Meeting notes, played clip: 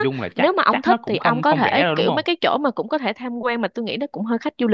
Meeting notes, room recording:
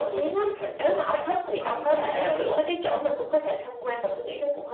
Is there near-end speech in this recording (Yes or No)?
No